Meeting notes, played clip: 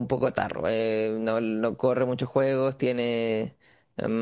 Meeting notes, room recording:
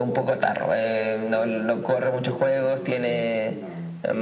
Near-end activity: present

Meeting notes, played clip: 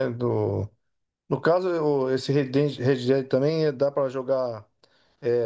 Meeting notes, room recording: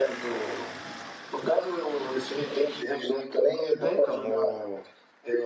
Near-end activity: present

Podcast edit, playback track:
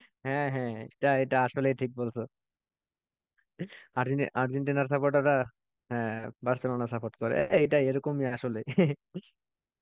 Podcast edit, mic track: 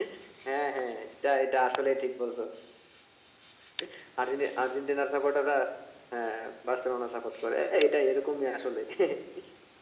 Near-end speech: none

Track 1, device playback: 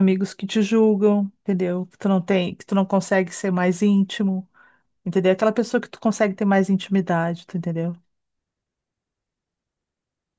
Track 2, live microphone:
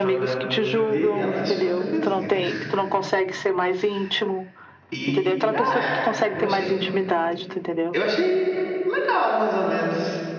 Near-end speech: present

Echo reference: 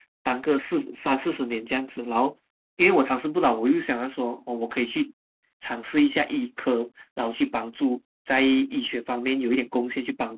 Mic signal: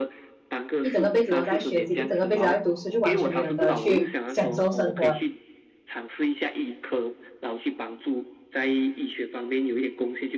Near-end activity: present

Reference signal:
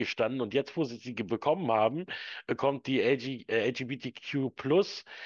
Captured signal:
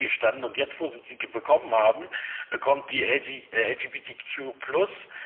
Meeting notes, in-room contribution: none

